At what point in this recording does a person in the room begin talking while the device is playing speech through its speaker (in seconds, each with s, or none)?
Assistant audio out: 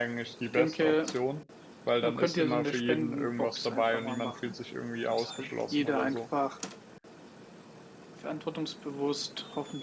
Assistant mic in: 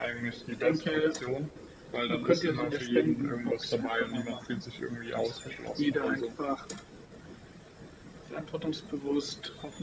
none